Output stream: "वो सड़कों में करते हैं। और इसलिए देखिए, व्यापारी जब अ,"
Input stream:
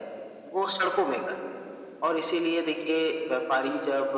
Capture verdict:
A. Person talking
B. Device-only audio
B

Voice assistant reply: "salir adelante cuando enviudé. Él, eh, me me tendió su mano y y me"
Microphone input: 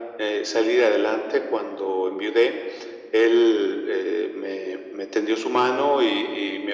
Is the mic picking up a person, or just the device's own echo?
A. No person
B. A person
A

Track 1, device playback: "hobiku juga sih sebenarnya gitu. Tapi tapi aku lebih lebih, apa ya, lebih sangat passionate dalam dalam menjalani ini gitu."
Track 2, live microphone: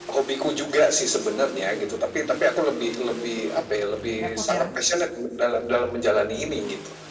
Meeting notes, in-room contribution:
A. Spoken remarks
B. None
A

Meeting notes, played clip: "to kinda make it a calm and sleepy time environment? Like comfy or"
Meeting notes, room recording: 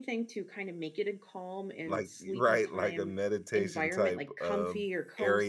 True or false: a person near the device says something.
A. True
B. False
A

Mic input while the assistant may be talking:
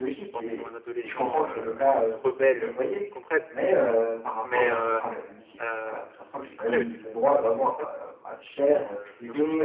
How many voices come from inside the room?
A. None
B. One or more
B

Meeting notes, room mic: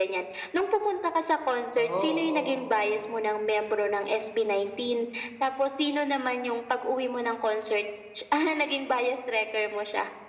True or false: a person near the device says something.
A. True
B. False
A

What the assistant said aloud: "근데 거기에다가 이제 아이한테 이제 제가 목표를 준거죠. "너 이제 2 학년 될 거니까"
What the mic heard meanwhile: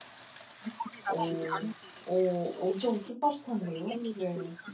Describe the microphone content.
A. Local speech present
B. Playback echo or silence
A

